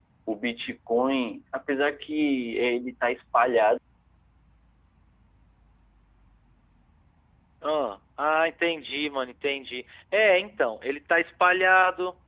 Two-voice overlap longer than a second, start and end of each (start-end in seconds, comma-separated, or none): none